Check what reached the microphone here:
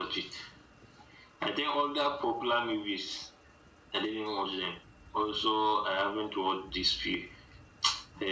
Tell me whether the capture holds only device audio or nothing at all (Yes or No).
Yes